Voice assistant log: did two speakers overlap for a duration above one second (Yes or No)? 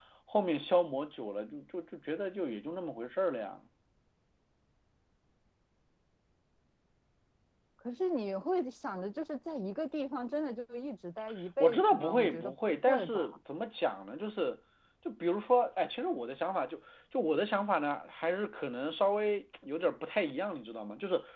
Yes